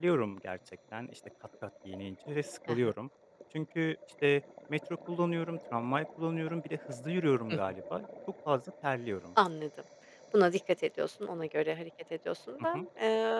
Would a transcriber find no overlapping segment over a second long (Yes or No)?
Yes